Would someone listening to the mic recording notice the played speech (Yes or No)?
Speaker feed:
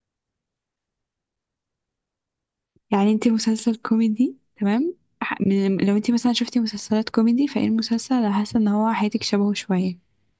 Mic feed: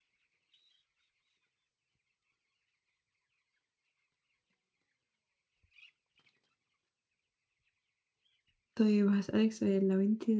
No